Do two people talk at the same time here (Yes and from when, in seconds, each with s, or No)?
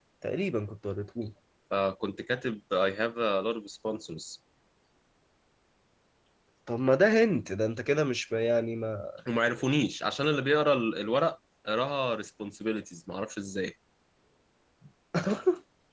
No